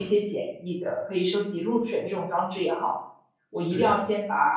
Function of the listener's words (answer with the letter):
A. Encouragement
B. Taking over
A